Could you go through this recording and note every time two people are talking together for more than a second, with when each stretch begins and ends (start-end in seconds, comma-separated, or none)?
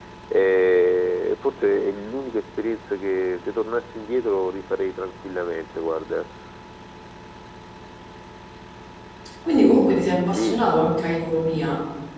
none